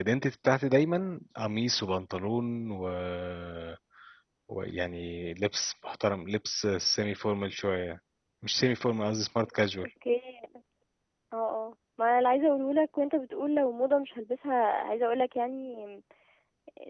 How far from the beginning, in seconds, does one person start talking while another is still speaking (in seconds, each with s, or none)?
none